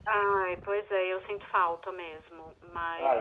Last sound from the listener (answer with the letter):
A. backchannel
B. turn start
A